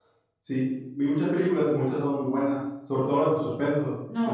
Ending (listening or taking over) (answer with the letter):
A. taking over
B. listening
A